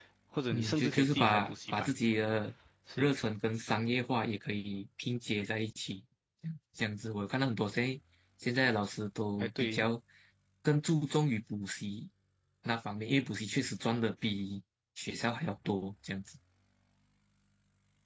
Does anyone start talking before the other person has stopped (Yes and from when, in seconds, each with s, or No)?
Yes, from 0.5 s